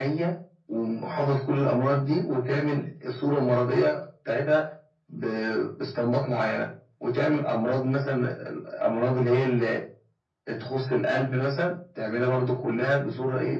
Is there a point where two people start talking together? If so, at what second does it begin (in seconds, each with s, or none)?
none